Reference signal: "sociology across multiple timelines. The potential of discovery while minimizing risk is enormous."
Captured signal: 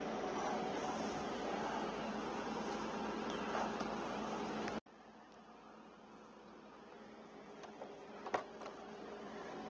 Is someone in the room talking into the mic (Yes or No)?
No